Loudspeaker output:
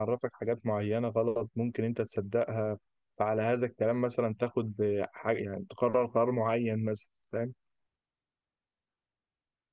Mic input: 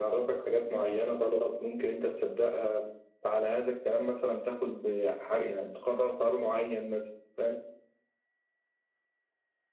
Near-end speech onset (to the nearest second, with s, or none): none